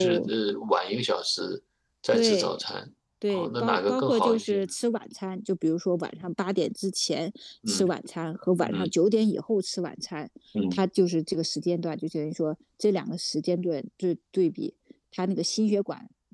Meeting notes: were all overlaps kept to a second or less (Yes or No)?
No